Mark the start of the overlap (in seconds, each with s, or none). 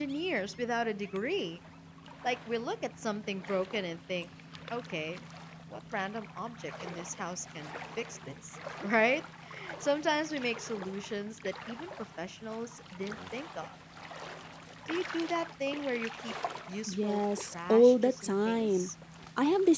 16.9 s